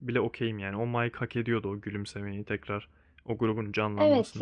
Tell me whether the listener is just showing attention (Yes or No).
No